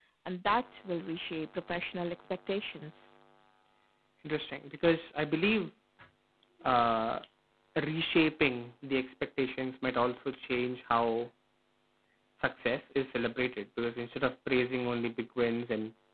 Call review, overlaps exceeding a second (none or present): none